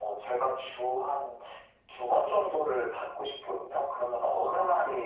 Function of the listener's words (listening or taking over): listening